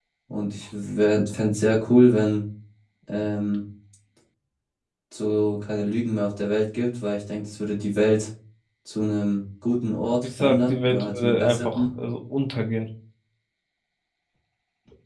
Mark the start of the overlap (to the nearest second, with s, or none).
10 s